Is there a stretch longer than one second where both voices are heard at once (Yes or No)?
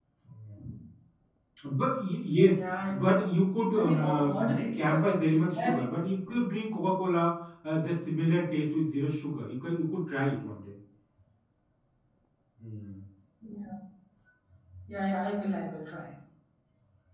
Yes